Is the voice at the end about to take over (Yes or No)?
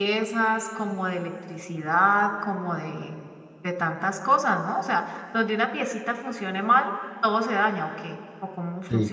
Yes